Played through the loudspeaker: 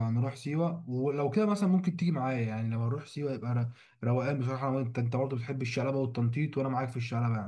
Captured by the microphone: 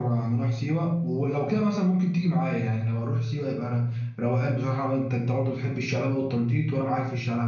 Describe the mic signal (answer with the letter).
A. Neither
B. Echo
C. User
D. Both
B